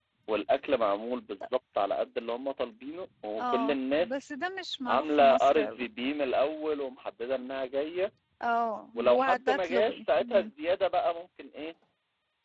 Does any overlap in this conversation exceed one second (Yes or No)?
Yes